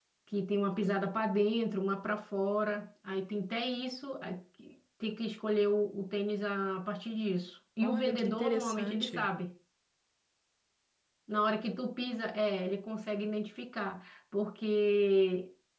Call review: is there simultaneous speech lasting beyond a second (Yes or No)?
Yes